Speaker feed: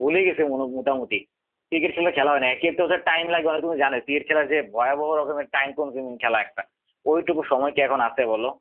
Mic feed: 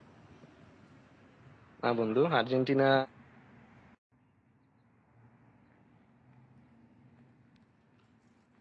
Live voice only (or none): না বন্ধু আর্জেন্টিনা